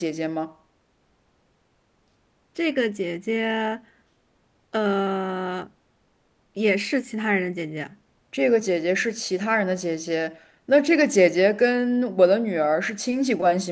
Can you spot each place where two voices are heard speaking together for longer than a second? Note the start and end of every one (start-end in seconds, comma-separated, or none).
none